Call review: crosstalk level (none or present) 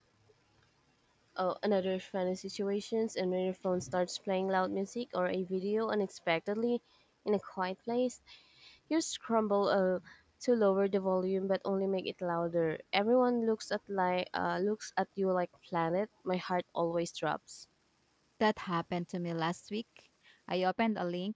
none